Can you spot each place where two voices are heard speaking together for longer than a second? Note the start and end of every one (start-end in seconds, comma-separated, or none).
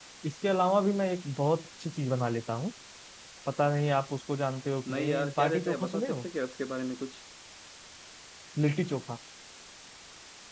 4.9-6.2